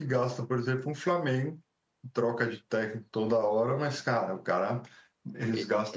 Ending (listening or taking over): listening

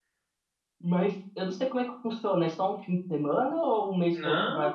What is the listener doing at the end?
taking over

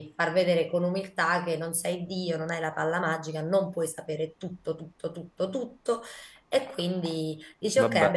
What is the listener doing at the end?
listening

